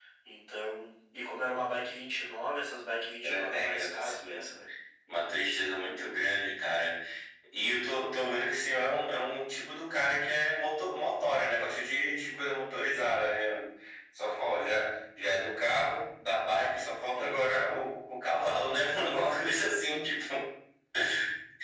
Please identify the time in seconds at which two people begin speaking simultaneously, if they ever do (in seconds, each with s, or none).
3.2 s